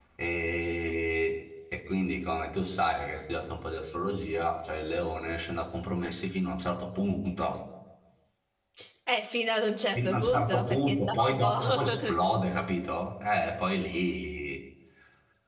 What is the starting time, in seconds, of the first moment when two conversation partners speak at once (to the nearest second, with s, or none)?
10 s